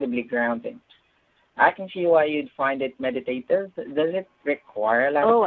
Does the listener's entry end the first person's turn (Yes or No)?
Yes